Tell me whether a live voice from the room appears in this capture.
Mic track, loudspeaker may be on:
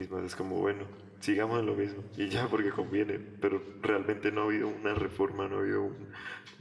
Yes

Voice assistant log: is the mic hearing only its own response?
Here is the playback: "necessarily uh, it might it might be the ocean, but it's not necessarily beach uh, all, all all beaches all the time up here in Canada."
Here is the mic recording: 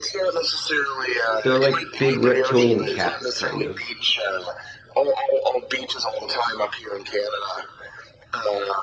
No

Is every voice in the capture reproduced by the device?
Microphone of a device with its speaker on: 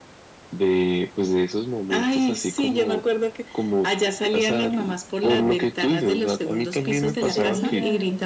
No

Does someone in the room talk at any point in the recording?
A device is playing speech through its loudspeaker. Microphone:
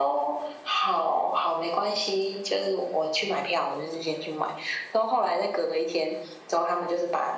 No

